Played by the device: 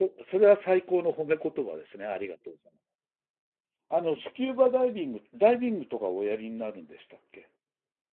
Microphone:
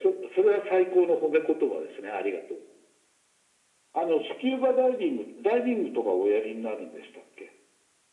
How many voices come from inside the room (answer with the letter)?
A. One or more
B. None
B